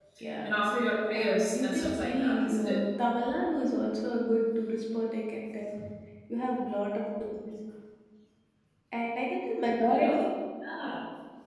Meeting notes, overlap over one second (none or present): present